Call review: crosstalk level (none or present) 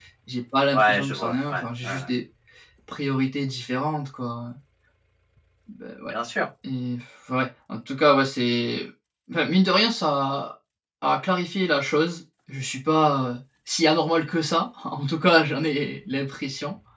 present